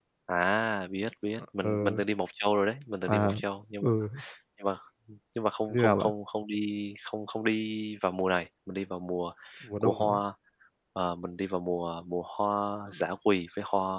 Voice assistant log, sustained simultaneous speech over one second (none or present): none